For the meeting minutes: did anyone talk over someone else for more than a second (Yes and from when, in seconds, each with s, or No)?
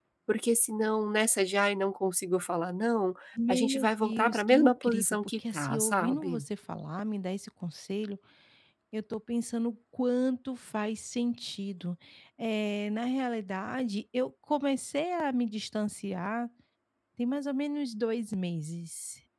Yes, from 3.4 s